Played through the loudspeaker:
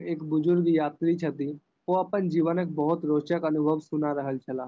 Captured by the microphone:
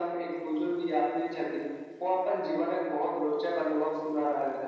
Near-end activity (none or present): none